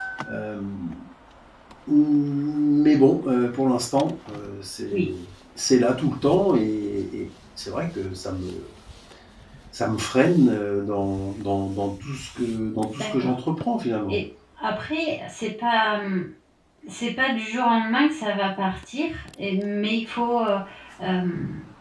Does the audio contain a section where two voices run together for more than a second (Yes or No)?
No